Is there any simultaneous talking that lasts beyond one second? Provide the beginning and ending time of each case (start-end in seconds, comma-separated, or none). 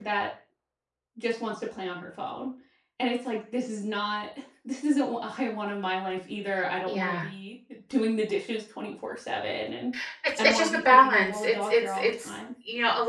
10.4-12.4